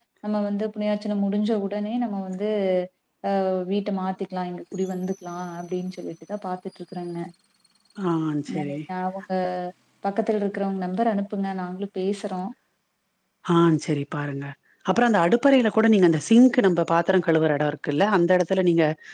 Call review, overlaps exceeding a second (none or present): none